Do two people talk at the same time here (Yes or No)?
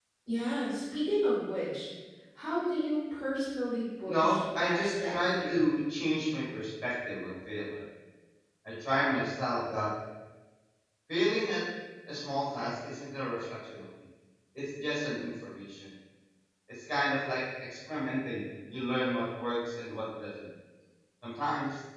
Yes